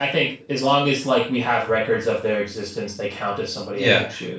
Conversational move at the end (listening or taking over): taking over